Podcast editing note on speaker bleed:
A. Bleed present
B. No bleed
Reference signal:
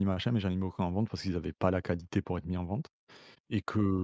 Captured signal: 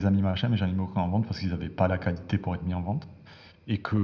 A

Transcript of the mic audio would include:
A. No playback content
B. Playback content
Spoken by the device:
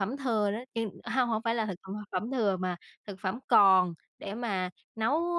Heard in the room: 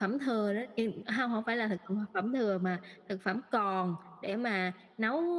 B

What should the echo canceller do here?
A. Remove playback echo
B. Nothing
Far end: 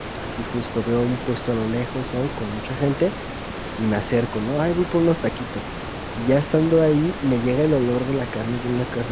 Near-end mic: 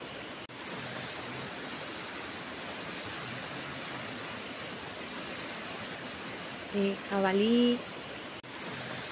B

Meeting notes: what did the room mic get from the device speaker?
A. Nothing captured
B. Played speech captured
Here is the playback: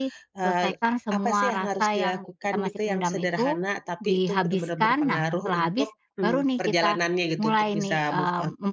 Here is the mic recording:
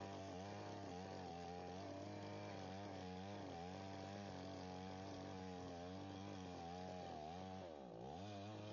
A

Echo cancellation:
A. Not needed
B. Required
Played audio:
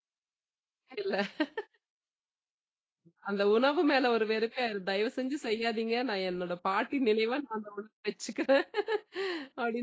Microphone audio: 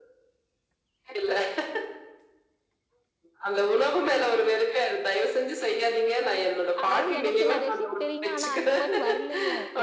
B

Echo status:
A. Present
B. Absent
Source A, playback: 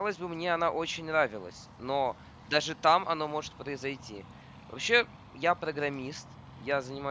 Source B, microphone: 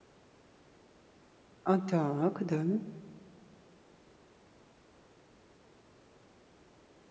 B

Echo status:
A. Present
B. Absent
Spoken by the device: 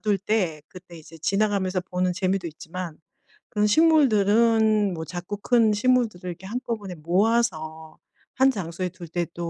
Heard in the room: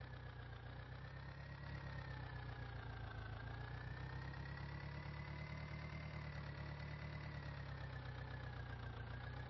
B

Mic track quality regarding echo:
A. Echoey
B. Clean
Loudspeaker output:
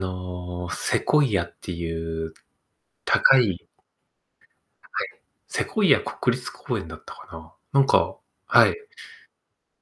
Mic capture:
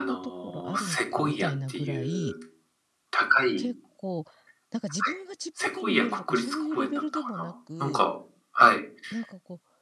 A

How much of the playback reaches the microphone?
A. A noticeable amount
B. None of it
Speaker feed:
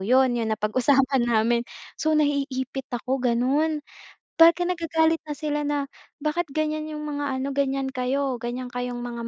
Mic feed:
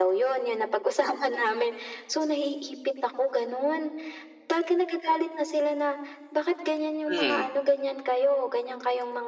A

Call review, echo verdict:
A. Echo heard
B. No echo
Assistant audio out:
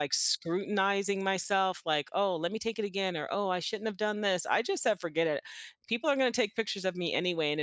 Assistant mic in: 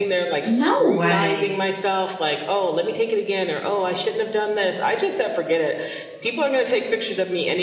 A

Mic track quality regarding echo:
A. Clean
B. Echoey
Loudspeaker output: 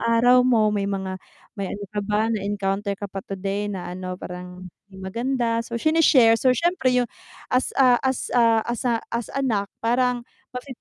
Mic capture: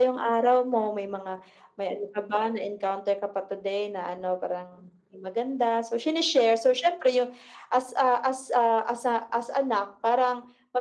B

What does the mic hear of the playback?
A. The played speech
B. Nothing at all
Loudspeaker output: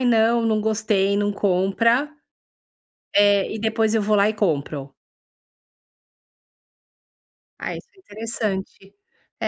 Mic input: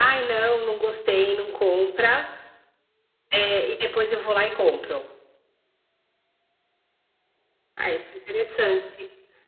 A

